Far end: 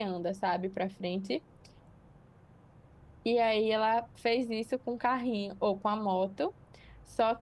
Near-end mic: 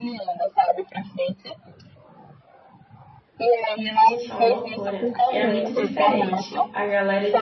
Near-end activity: present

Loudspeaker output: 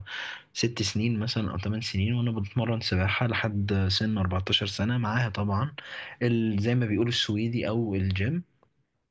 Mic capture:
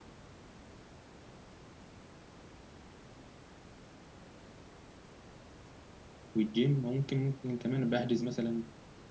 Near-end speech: present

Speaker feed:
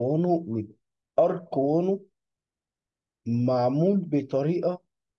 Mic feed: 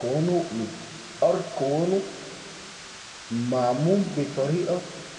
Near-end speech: none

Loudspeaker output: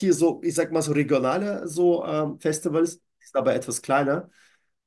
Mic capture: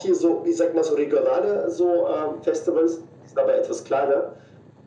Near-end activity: none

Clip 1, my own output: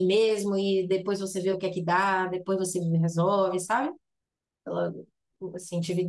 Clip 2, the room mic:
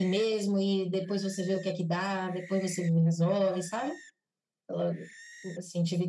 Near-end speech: none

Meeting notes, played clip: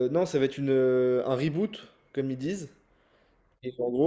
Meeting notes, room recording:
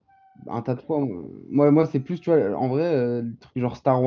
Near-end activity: present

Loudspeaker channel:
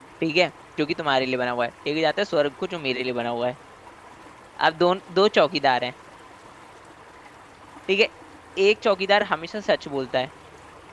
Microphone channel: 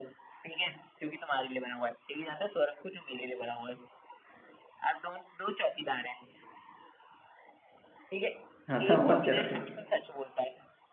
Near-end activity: present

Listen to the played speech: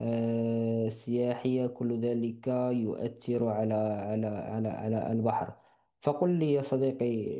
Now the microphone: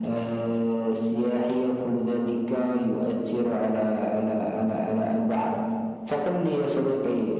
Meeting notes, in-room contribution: none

